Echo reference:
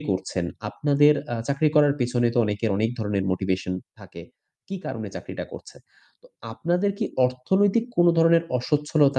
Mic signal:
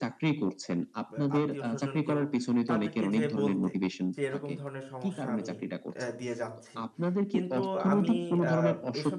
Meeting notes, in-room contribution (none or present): present